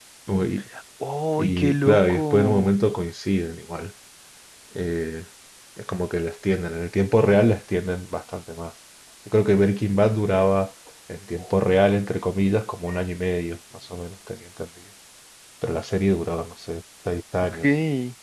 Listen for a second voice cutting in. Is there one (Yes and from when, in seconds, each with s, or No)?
Yes, from 1.4 s